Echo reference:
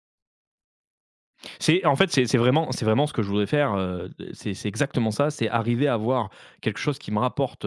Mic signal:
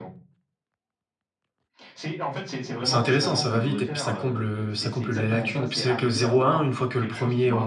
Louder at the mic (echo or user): user